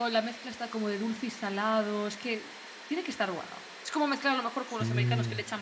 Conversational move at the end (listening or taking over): listening